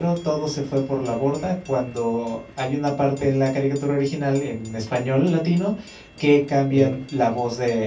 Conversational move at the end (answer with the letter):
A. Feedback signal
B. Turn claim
A